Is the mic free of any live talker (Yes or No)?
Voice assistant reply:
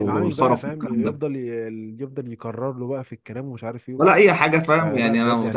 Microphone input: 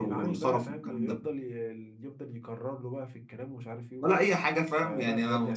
Yes